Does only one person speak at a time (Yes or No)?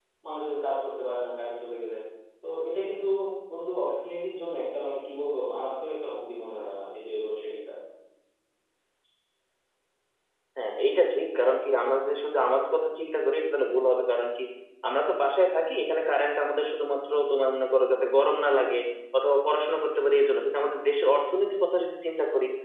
Yes